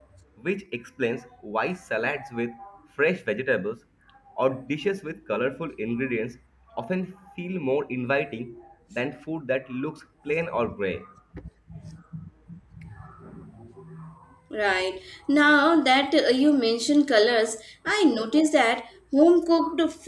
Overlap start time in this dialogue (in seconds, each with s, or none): none